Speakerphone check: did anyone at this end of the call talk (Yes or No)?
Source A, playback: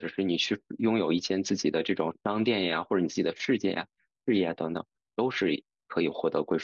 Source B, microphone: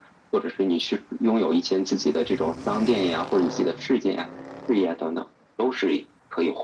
No